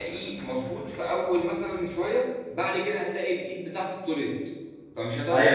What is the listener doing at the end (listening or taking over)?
taking over